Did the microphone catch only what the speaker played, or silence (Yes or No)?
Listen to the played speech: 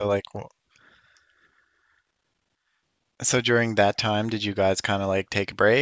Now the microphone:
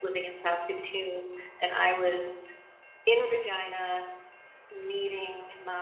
No